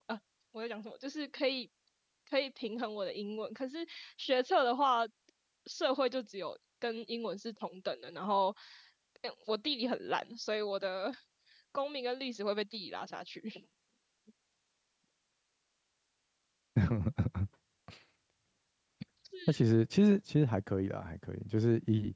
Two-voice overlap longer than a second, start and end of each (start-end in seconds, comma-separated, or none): none